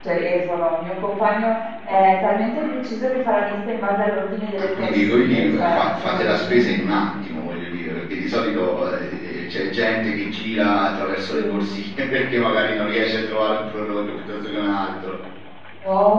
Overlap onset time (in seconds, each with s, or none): 4.6 s